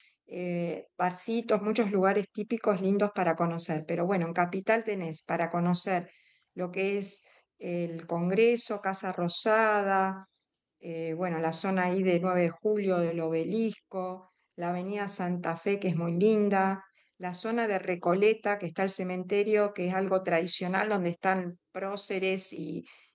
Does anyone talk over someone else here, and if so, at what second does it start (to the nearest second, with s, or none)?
none